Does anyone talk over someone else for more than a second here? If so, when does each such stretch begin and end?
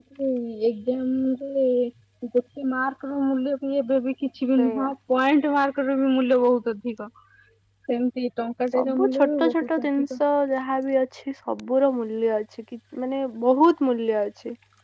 8.8-10.1

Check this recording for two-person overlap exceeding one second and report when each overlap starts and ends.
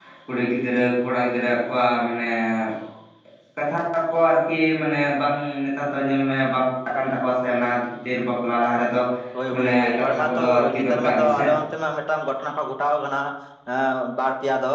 9.5-11.4

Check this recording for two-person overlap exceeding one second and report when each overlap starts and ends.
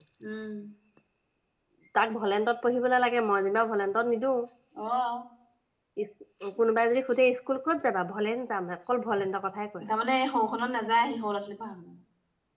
none

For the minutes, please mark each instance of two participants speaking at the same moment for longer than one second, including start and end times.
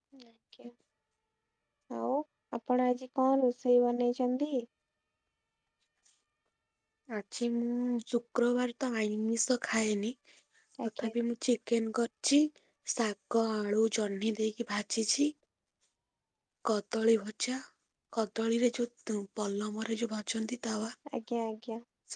none

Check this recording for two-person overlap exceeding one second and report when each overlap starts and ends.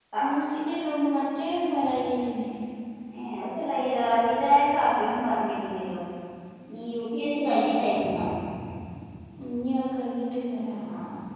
none

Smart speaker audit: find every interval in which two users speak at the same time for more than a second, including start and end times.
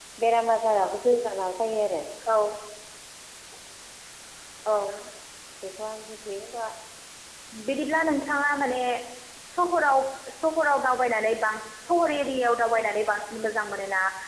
none

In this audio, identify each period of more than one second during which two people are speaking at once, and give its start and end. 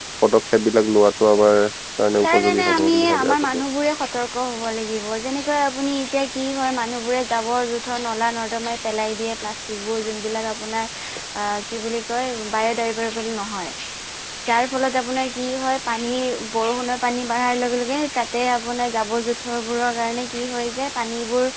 2.2-3.6

